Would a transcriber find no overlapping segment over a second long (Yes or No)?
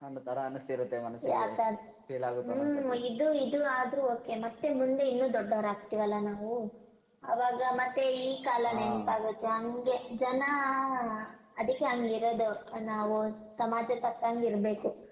Yes